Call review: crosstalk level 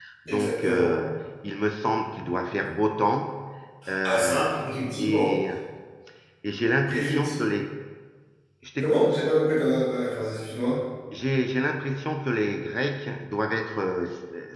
present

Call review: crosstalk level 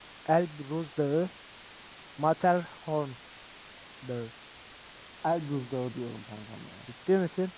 none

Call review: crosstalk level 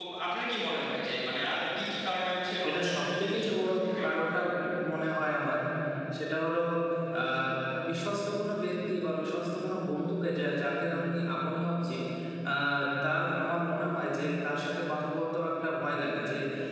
present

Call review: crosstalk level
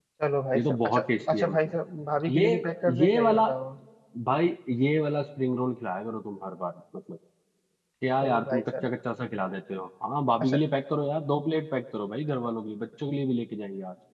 present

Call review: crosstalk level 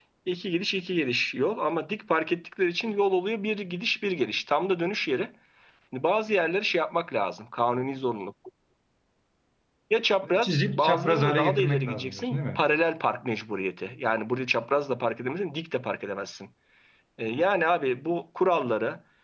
present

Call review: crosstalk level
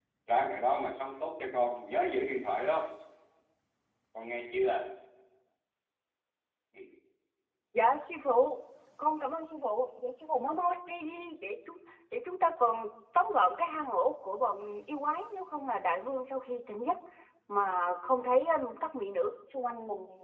none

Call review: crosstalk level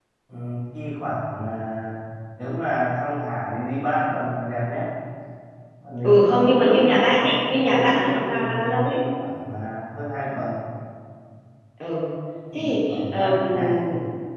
present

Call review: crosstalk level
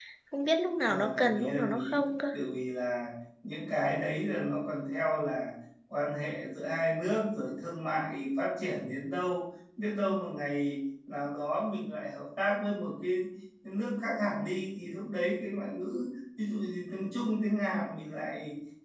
present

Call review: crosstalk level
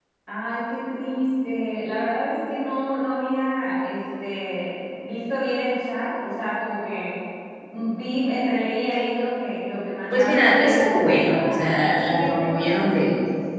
present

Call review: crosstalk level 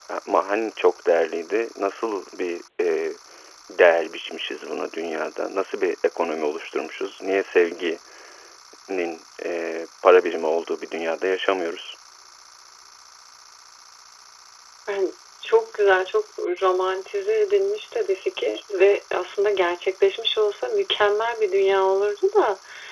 none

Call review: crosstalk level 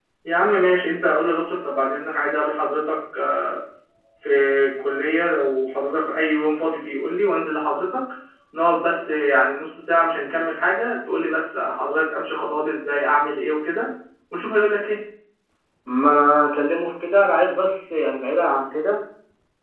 none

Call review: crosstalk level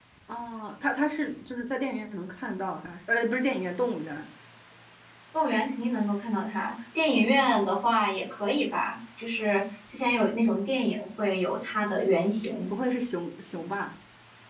none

